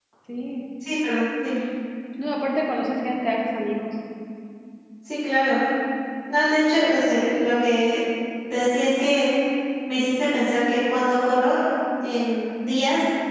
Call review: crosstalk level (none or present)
none